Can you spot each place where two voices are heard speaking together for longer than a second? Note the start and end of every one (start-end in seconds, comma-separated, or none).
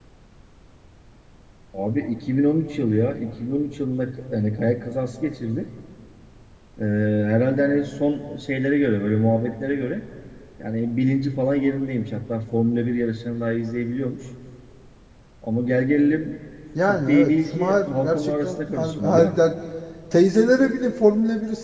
16.9-19.4